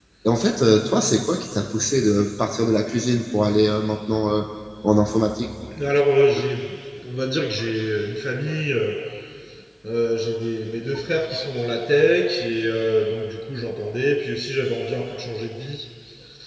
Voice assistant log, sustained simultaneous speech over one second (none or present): none